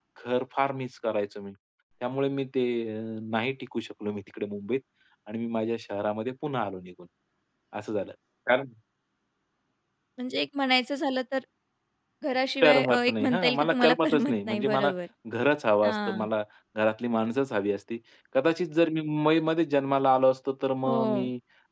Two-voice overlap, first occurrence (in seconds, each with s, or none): 12.6 s